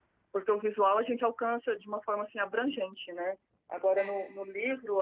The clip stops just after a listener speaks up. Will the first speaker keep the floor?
Yes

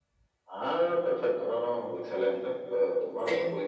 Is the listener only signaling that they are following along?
Yes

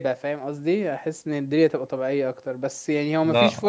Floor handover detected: No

